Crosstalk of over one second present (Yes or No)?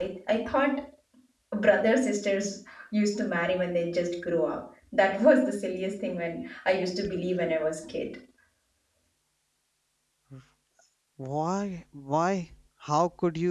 No